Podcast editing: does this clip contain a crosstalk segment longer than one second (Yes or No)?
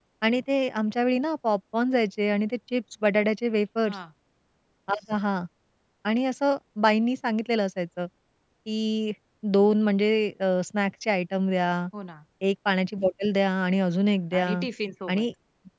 No